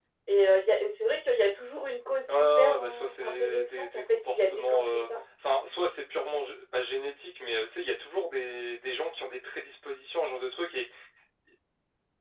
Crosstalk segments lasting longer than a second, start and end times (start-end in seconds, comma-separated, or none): 2.3-5.0